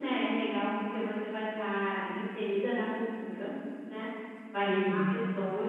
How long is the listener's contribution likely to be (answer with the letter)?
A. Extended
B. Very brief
B